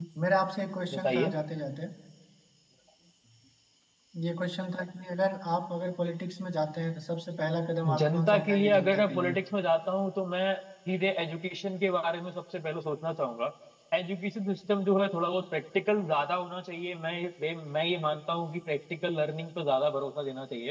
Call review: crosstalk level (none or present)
present